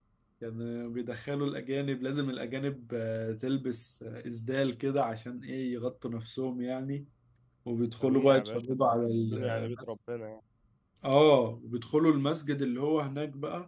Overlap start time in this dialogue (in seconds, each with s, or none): 8.0 s